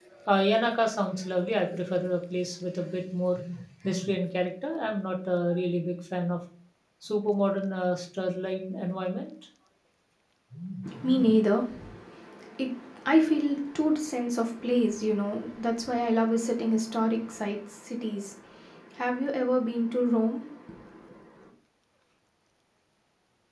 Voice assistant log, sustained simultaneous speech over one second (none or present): none